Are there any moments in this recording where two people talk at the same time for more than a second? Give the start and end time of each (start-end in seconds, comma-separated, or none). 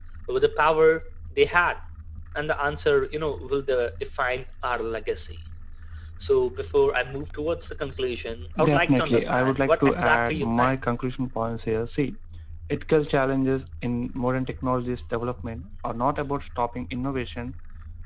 8.6-10.7